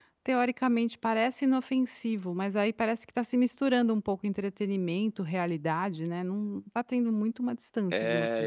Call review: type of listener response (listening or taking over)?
taking over